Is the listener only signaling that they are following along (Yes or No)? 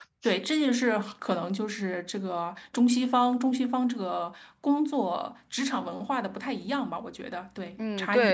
No